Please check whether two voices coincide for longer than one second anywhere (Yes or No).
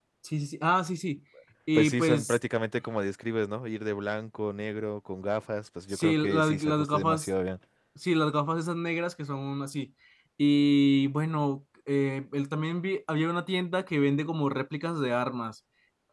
Yes